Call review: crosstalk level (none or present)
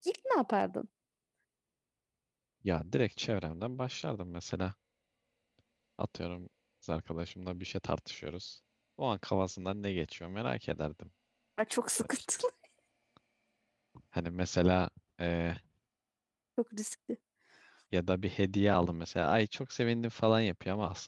none